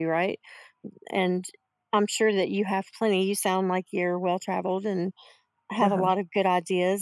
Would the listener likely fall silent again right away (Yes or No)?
Yes